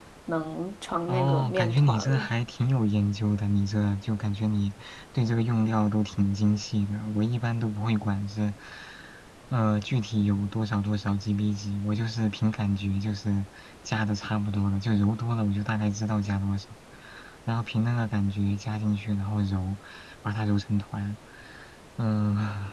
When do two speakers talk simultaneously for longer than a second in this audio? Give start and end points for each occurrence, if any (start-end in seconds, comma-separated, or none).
1.1-2.3